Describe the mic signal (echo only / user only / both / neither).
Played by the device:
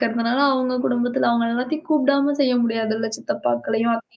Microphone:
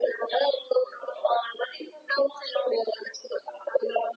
echo only